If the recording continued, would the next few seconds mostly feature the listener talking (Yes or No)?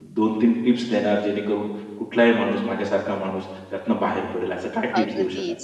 Yes